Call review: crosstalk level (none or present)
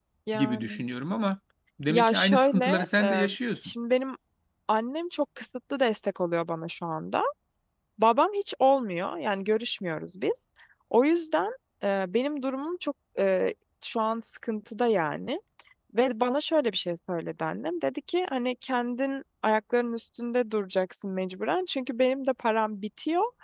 present